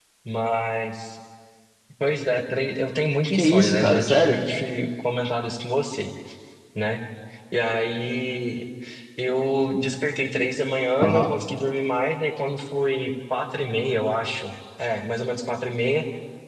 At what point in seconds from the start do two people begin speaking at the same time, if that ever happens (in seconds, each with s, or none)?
3.3 s